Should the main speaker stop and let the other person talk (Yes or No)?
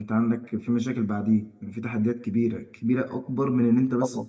No